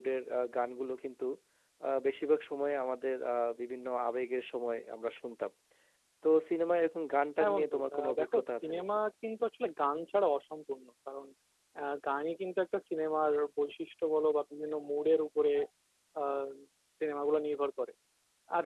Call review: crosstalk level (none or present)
present